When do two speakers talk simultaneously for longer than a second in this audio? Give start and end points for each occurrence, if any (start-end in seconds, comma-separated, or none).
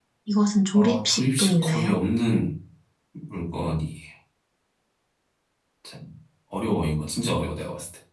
0.7-2.0